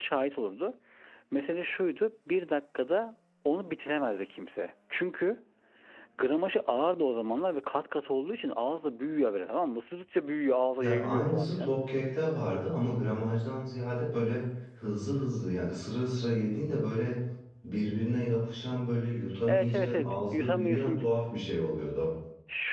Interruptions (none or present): present